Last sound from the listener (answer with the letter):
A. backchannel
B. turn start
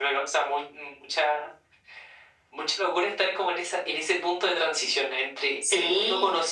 A